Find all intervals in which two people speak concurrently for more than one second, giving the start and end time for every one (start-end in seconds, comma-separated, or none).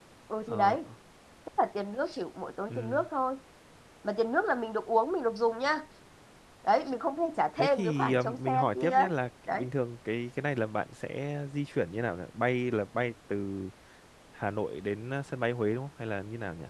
7.6-9.1